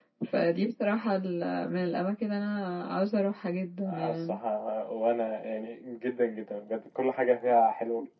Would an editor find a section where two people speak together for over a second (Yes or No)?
No